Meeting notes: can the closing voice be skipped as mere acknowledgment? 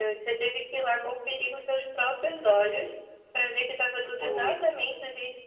Yes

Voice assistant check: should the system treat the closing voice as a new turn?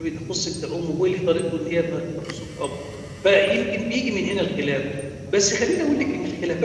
No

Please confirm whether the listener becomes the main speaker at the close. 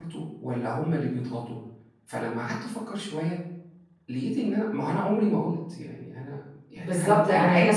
Yes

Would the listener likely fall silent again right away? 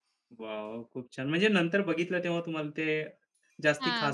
No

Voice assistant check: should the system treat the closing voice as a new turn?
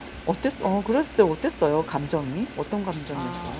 Yes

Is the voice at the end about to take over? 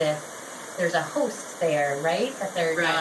Yes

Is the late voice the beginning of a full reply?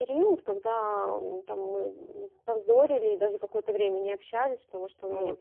No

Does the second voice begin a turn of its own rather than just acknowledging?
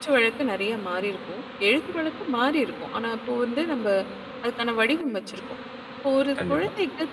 No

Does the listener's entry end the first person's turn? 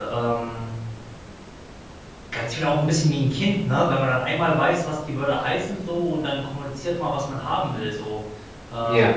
No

